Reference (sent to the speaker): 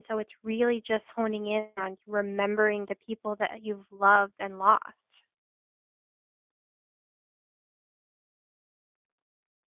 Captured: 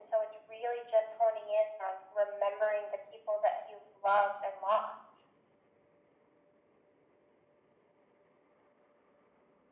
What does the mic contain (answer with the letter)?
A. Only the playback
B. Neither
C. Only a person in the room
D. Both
A